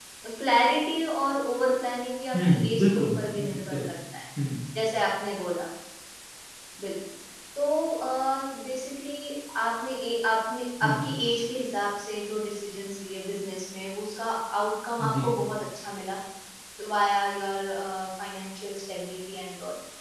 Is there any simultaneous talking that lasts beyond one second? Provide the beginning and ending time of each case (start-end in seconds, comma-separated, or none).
2.4-3.8